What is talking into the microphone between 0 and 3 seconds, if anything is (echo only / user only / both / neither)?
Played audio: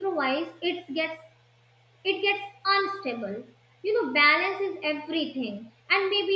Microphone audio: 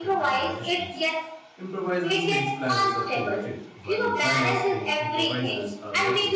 both